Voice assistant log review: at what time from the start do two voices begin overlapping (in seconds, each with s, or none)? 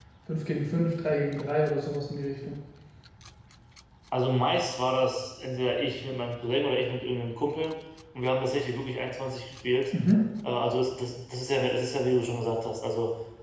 none